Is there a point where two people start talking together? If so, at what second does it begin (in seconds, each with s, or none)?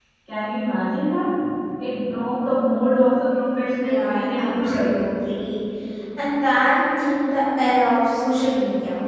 3.7 s